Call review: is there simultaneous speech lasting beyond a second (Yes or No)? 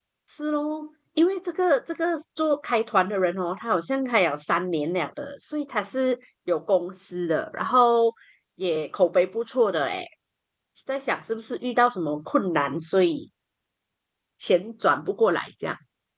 No